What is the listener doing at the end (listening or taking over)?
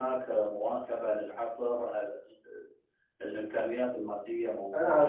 taking over